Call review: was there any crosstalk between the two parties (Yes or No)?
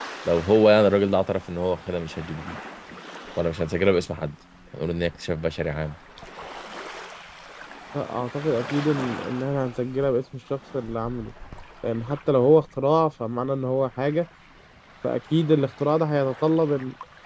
No